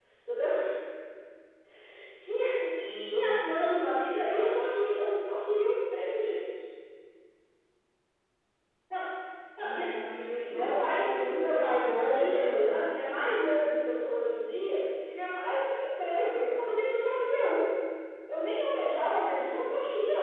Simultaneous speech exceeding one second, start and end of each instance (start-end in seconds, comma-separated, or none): 10.5-12.8